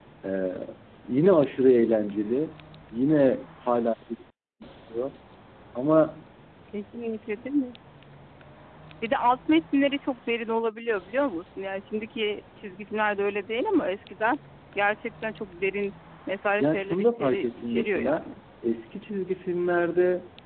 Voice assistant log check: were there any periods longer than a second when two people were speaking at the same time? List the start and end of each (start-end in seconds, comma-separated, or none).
16.6-18.3